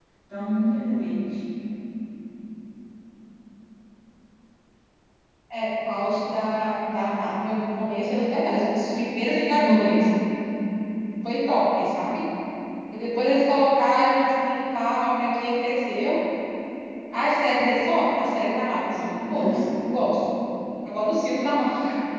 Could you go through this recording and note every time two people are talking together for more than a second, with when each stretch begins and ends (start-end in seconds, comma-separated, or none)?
none